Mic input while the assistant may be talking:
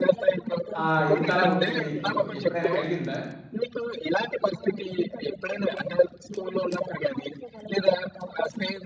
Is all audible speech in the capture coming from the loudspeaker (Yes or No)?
No